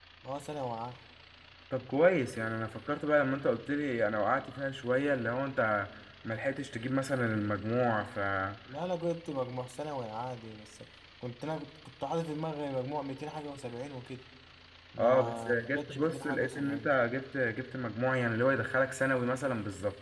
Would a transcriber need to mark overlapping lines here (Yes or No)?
Yes